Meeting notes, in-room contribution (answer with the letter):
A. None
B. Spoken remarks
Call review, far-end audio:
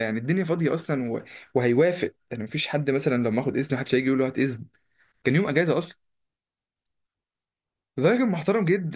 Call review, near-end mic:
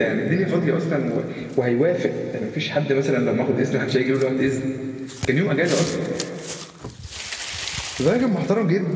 A